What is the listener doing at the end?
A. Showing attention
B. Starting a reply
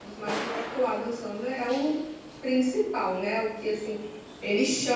B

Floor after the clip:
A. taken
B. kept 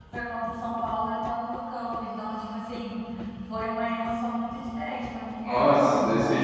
A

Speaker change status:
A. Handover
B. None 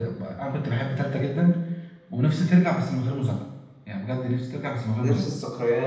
A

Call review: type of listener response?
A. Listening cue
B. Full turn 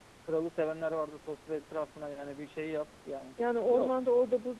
B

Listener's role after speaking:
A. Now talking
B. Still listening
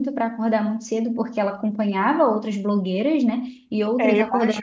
A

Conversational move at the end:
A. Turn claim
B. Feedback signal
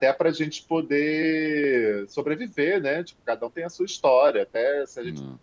B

